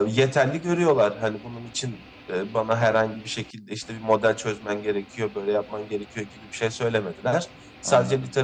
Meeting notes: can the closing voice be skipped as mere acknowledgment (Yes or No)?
Yes